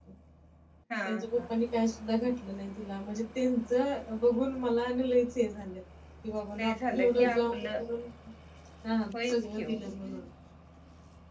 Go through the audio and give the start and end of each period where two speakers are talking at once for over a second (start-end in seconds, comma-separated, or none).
6.6-7.8